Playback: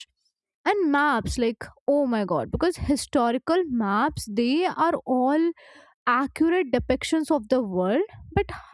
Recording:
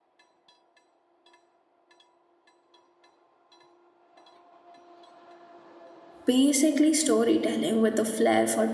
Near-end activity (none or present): present